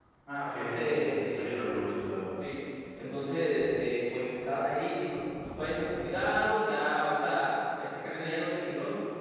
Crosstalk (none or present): present